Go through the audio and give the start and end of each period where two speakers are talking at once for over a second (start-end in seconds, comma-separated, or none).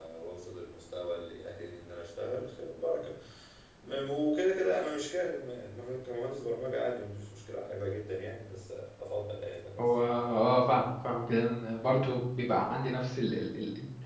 none